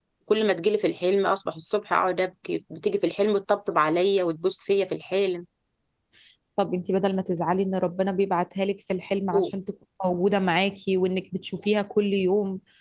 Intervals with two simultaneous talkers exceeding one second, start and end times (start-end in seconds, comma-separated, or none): none